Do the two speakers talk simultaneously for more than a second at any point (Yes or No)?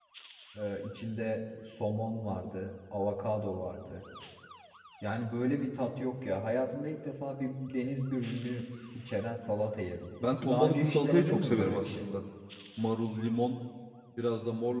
Yes